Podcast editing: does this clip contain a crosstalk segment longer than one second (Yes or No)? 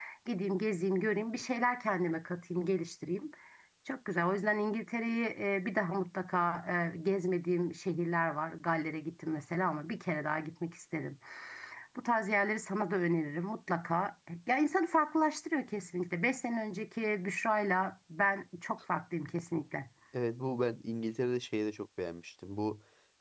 No